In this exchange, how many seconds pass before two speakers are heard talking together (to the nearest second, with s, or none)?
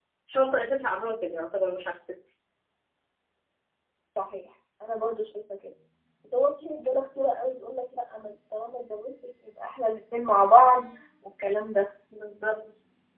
none